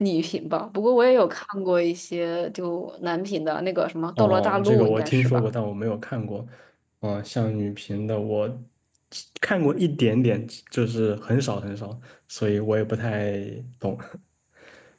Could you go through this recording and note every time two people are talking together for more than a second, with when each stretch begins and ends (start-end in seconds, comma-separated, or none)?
4.2-5.5